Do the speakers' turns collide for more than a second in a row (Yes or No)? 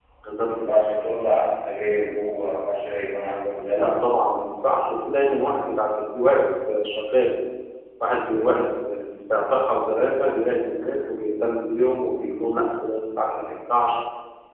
No